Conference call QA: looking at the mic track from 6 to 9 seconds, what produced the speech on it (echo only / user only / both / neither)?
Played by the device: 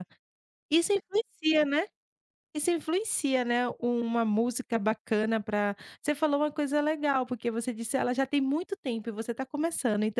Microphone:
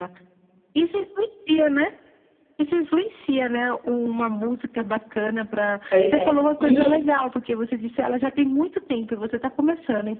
both